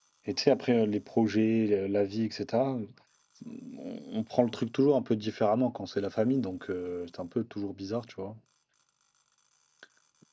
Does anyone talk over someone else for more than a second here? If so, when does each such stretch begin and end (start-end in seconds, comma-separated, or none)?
none